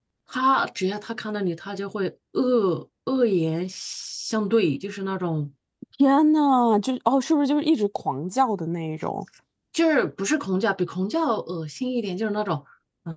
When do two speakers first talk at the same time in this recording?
none

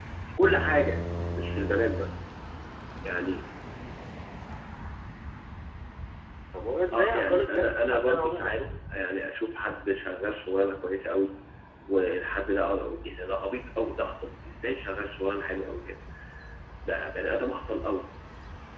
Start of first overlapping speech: 6.9 s

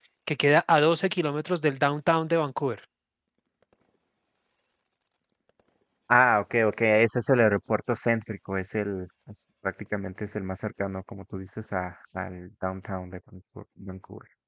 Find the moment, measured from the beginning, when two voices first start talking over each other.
none

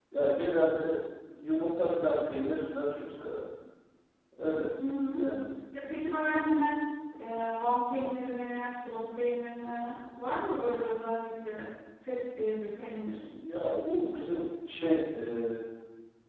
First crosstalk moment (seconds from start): none

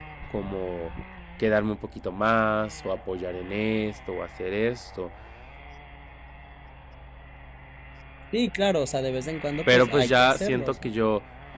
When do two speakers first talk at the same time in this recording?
9.7 s

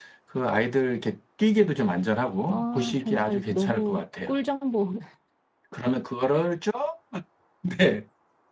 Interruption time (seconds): 2.5 s

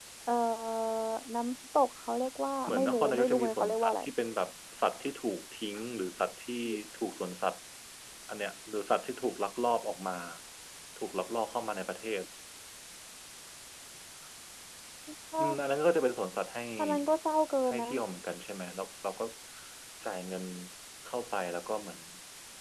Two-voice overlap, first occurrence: 2.7 s

